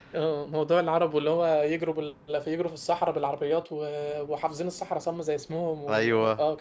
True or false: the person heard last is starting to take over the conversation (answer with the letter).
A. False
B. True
A